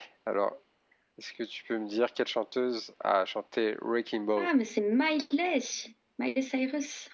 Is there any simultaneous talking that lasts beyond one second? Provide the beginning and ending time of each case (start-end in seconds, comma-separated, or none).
none